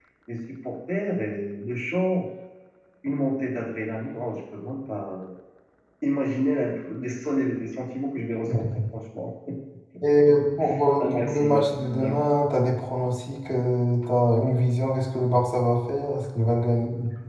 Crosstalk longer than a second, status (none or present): present